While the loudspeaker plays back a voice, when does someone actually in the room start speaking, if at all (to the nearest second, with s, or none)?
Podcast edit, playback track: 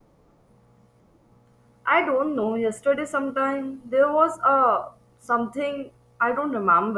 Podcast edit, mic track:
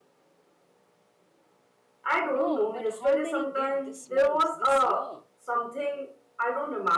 2 s